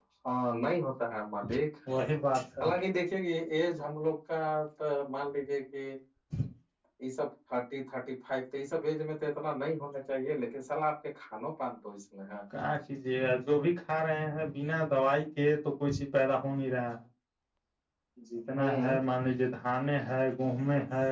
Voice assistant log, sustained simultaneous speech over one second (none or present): none